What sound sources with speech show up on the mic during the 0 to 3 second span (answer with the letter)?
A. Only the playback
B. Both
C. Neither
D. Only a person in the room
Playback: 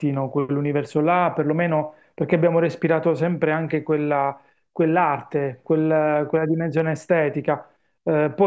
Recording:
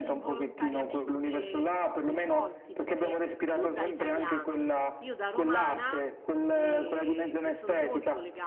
B